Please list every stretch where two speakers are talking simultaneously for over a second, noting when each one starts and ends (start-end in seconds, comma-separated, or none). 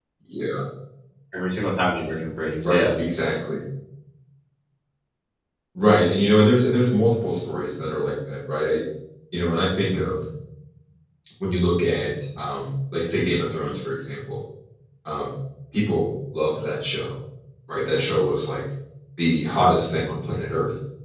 none